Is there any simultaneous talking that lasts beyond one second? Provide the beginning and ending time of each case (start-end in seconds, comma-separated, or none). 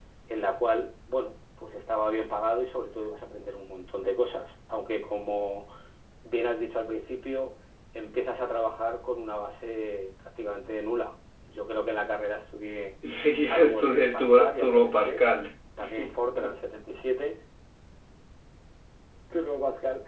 13.5-15.2